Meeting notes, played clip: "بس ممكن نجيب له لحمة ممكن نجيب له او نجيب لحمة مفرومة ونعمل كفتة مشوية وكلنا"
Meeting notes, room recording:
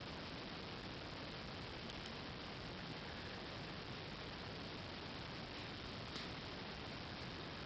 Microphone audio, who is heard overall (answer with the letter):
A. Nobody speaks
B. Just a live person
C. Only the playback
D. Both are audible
A